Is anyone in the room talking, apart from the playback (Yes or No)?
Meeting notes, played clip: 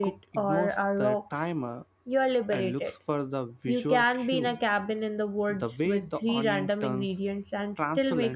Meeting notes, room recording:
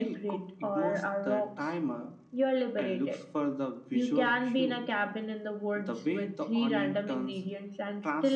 No